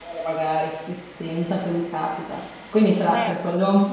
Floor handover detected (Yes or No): No